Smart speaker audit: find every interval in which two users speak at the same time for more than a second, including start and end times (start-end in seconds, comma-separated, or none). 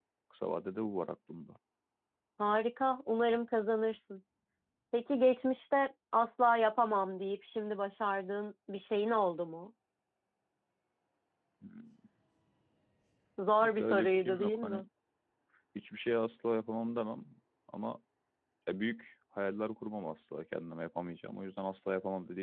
13.6-14.8